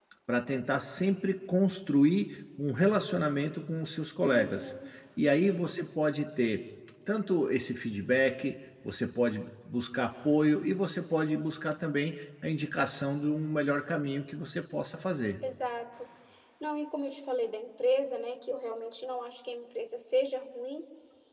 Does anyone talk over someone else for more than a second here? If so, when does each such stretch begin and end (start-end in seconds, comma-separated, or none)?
none